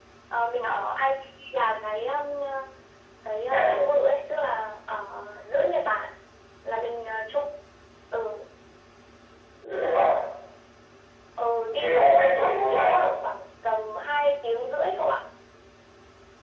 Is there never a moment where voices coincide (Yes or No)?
No